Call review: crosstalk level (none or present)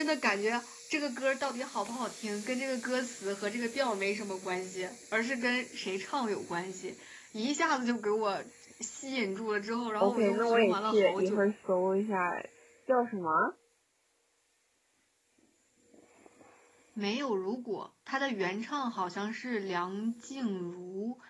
present